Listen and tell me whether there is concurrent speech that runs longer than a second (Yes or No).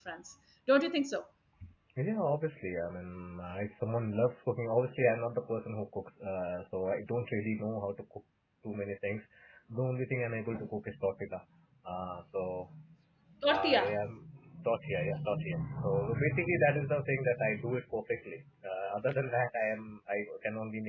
No